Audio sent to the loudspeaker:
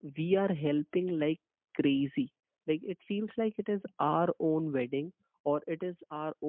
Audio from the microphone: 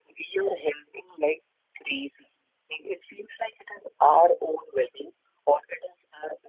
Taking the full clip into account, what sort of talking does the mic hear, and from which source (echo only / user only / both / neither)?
echo only